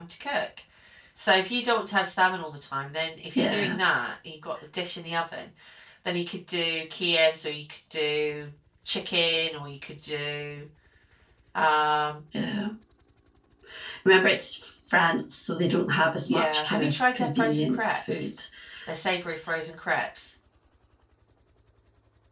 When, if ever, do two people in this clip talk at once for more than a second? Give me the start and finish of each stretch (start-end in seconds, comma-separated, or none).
16.3-18.3